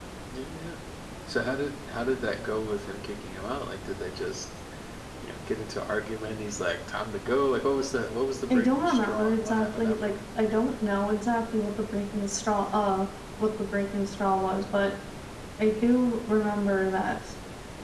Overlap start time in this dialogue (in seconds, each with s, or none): 8.5 s